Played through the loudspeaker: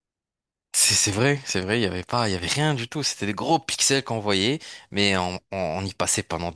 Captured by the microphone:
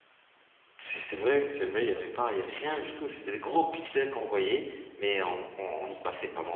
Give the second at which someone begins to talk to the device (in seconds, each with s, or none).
none